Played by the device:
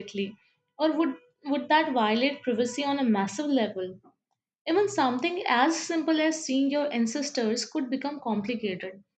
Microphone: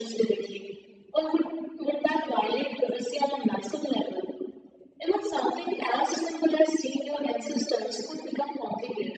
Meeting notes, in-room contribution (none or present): none